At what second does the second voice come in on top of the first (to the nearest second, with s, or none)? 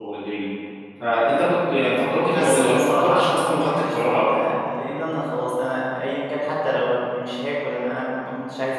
2 s